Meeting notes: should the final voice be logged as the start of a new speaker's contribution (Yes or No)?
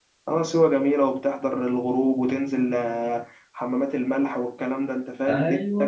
Yes